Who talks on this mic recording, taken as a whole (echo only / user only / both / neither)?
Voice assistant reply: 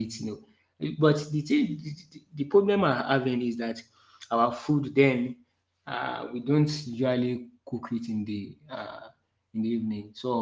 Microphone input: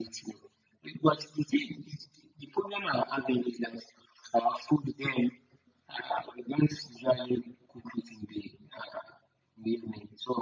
echo only